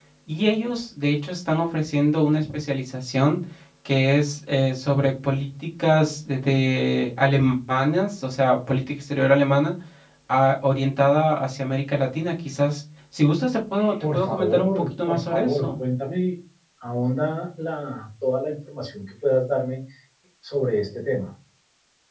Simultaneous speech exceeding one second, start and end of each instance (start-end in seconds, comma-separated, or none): 14.0-15.7